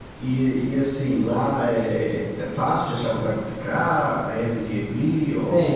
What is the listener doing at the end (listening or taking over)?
taking over